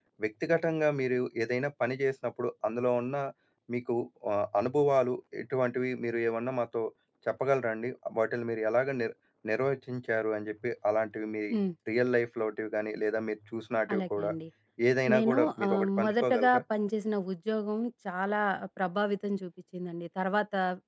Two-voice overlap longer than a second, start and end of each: 15.1-16.6

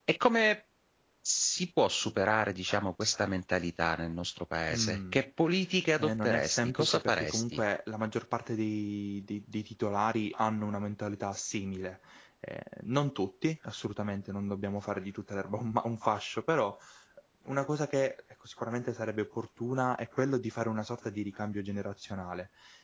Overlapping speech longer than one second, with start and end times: 6.0-7.6

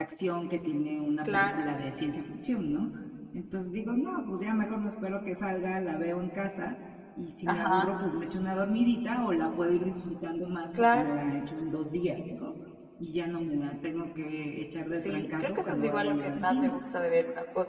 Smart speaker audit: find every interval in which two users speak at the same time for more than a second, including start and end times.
15.0-16.8

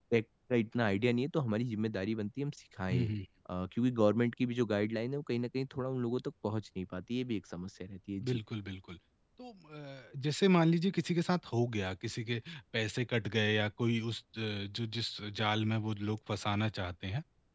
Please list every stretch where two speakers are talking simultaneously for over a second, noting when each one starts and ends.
none

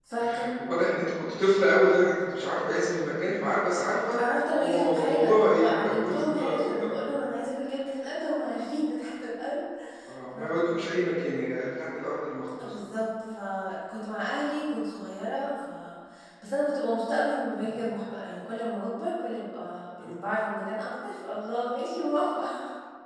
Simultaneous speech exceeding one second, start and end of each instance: 4.6-6.9

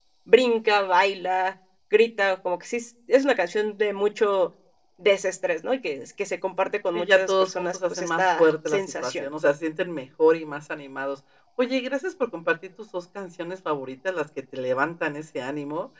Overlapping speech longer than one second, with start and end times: 6.9-9.3

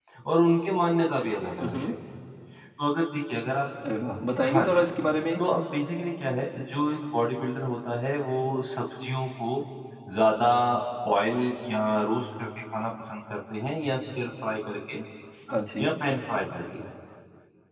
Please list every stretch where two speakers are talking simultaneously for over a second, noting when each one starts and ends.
none

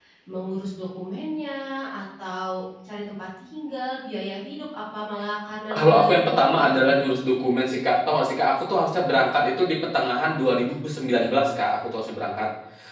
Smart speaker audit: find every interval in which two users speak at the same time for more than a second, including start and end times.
5.7-6.9

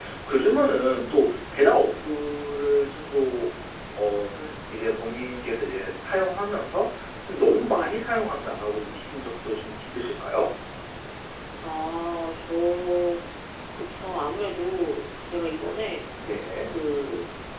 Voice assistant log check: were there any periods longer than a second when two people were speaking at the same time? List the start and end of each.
none

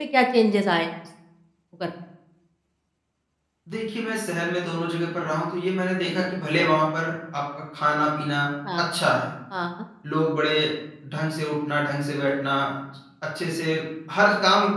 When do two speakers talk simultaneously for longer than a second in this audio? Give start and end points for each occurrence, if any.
none

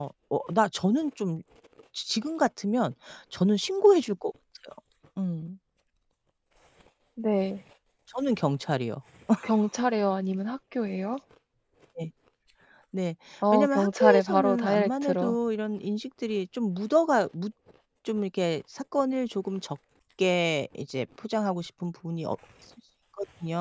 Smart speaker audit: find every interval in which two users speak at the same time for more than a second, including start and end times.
13.5-15.4

